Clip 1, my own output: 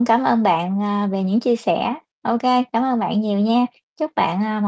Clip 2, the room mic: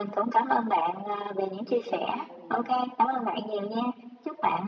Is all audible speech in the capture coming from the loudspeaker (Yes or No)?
No